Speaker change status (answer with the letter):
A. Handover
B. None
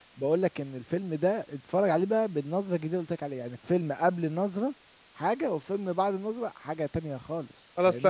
A